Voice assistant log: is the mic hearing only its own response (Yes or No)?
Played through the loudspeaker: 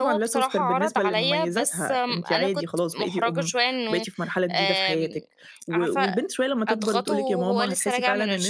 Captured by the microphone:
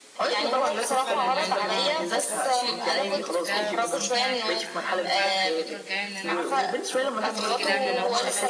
No